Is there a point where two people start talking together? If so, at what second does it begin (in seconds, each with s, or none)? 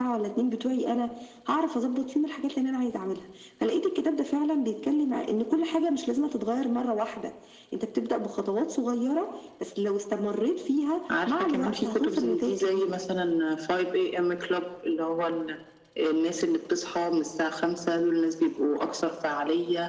11.1 s